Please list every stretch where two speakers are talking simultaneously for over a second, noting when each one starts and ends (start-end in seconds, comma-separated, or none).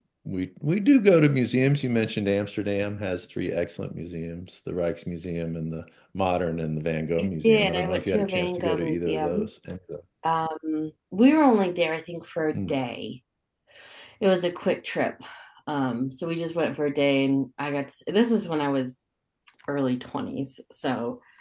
7.4-9.5